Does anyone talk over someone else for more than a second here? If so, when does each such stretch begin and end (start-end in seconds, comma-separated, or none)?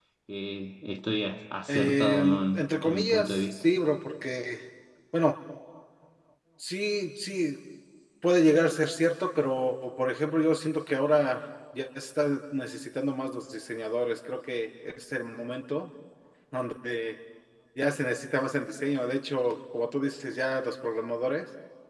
1.7-3.6